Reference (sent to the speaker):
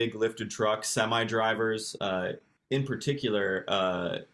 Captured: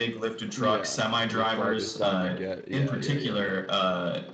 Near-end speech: present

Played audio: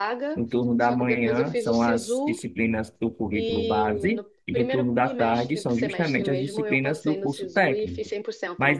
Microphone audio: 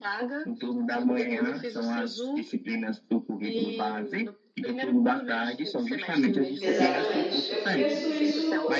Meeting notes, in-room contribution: present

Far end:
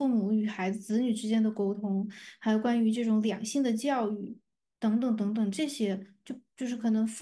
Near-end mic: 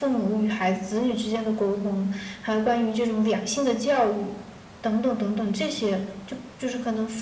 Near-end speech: none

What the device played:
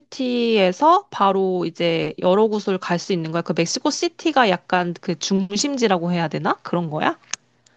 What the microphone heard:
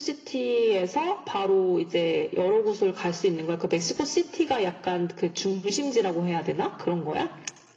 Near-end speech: none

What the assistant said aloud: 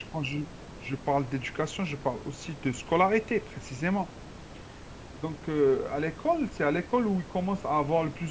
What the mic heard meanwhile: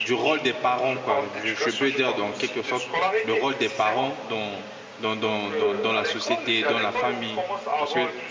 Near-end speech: present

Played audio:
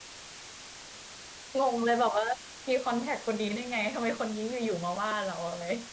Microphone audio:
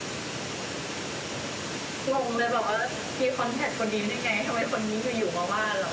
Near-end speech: none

